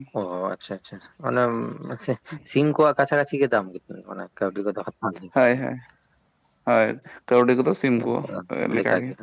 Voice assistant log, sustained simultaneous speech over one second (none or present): none